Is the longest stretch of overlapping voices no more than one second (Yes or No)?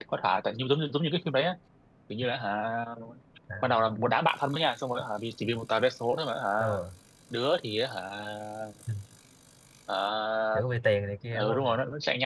Yes